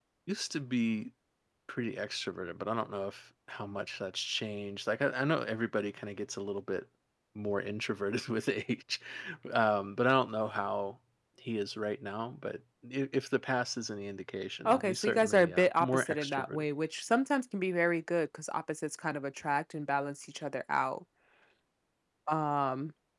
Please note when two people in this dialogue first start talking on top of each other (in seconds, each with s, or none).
14.6 s